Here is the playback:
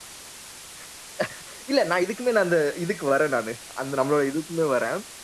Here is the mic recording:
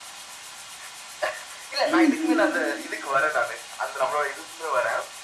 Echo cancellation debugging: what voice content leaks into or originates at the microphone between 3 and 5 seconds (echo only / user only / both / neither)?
echo only